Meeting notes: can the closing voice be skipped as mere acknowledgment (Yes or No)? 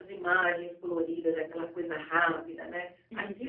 Yes